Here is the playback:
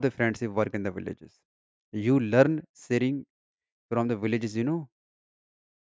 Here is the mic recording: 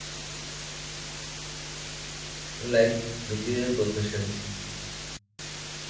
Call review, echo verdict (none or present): none